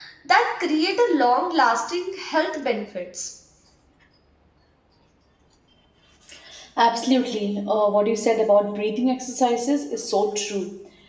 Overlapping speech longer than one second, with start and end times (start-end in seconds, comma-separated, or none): none